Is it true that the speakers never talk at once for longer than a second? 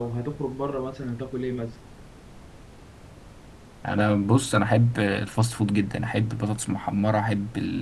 Yes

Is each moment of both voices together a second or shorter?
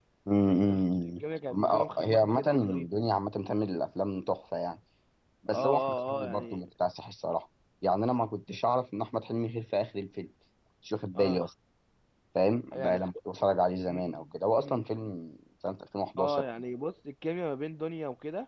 No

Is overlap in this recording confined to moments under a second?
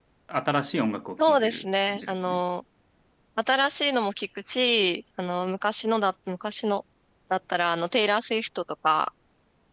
No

